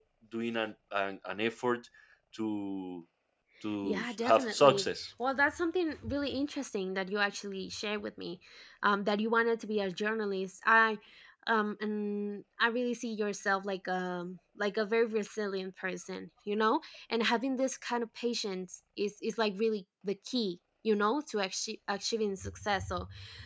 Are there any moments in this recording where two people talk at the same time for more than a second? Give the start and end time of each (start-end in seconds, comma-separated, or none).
3.8-5.1